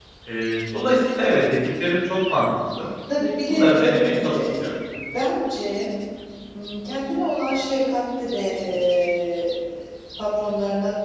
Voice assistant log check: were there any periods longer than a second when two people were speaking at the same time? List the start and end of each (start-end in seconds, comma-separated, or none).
3.5-4.7